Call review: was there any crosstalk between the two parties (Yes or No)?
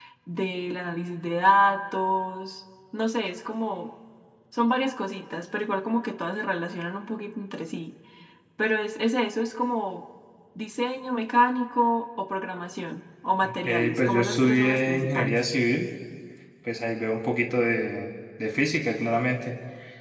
Yes